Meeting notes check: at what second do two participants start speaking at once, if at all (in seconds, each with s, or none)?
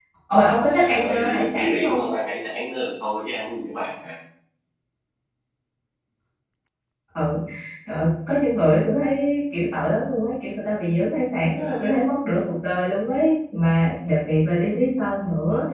0.8 s